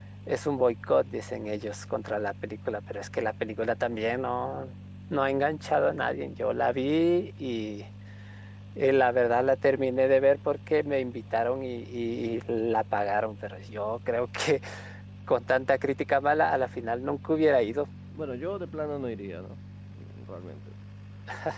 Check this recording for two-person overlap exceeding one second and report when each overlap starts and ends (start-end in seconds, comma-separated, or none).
none